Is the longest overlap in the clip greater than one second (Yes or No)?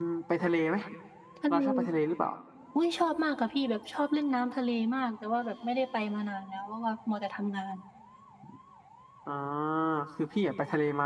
No